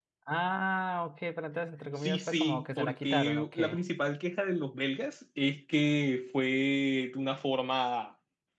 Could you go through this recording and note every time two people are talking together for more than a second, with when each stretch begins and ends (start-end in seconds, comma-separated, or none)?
2.0-3.5